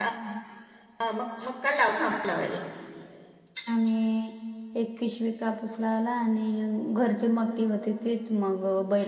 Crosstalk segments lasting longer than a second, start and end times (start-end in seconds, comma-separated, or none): none